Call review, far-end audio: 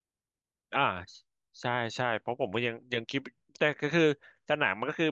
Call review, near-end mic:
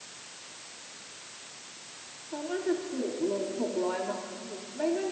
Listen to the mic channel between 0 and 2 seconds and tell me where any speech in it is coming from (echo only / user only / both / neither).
neither